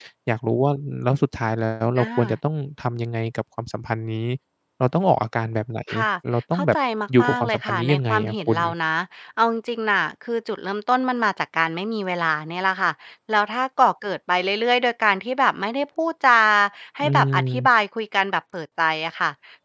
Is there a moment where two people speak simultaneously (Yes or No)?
Yes